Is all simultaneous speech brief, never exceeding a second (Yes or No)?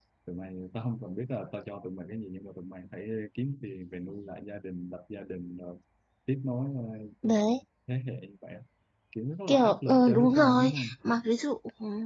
No